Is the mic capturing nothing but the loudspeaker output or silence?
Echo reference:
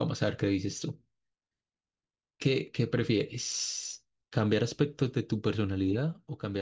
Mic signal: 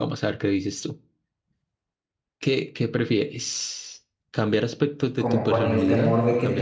No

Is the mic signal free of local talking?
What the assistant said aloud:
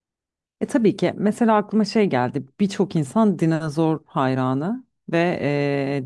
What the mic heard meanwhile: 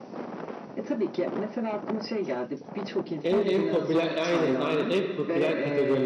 No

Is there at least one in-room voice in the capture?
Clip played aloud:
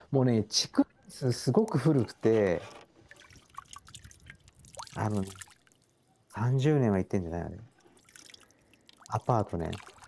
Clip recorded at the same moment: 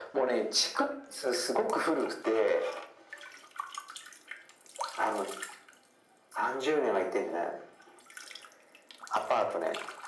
No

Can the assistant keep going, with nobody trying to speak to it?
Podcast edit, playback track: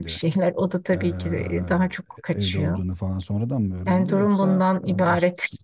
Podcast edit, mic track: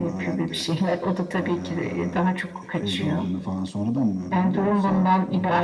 Yes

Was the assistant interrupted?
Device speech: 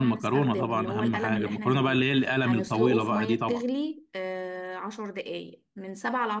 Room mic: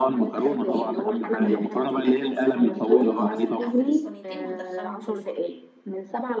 Yes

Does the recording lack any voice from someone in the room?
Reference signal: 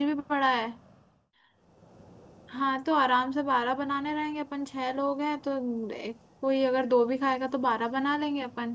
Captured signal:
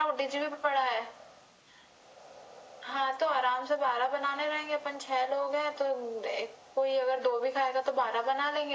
Yes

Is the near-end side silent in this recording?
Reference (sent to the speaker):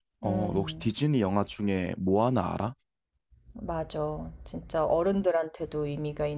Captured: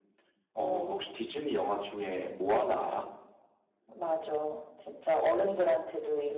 Yes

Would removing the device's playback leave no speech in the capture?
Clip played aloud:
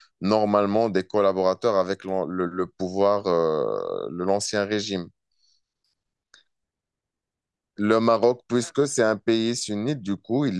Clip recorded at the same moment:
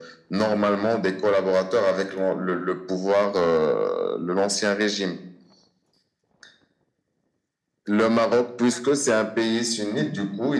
Yes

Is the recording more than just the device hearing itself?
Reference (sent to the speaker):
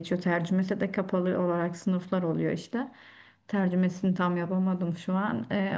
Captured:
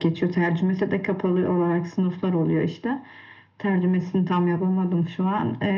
No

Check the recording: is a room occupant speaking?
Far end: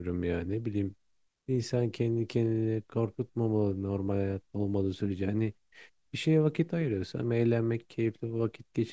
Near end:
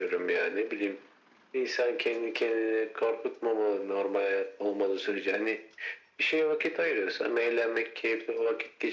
No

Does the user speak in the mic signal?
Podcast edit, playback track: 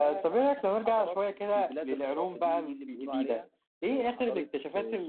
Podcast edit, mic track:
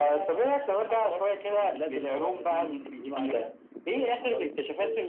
No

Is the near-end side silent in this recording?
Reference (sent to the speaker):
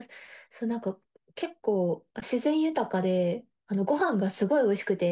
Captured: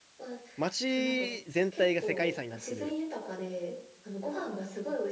No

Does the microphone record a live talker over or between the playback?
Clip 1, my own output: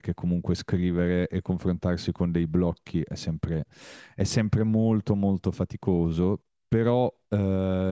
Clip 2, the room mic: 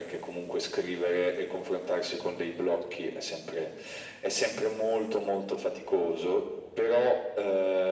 No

